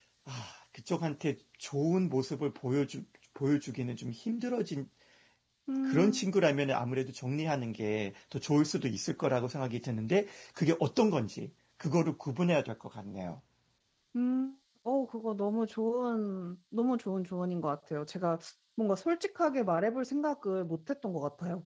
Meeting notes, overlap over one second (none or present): none